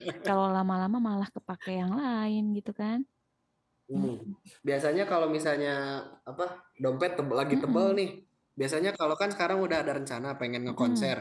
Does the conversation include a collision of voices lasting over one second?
No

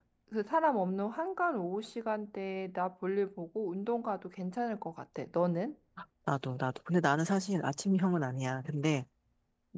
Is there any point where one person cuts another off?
No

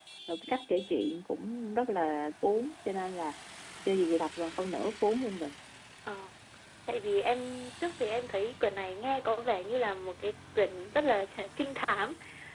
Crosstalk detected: No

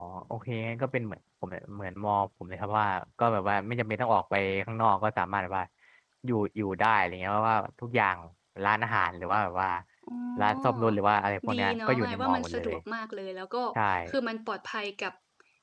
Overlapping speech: Yes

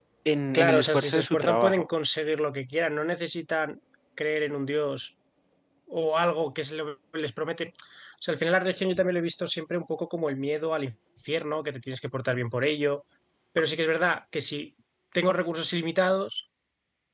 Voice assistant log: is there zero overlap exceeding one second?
No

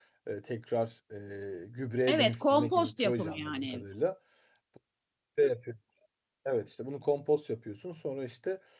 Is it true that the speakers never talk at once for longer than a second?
No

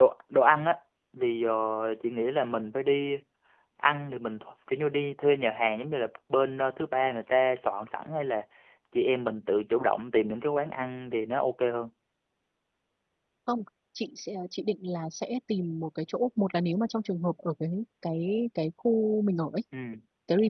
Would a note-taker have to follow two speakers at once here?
No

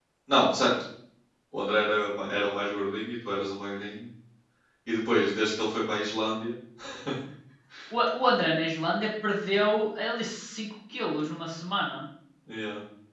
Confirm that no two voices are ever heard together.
Yes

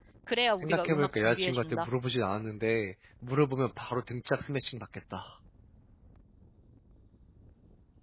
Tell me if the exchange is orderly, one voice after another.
No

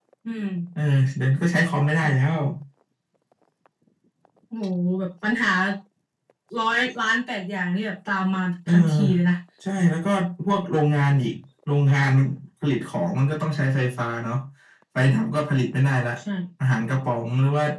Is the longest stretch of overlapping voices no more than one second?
Yes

